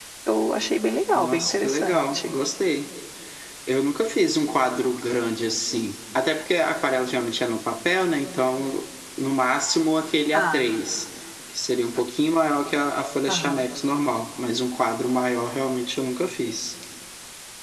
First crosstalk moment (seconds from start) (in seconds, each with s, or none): 1.1 s